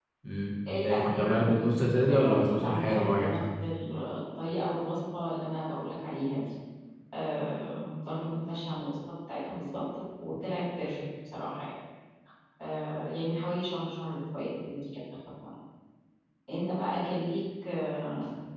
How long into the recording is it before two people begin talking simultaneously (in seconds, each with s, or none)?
0.8 s